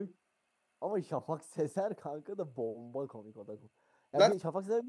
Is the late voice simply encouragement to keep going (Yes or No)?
Yes